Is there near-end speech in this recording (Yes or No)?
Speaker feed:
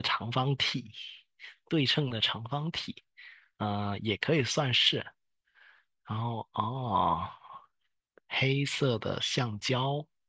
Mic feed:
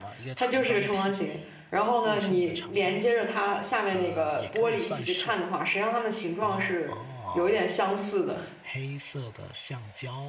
Yes